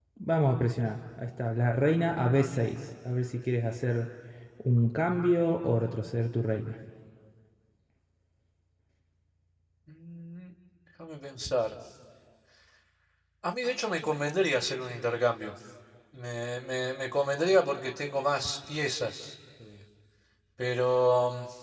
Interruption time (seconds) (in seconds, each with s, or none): none